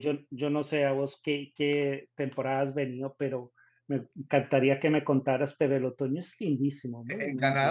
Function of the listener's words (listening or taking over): taking over